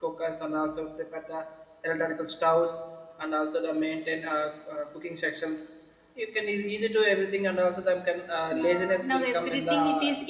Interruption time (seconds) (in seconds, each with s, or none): 8.5 s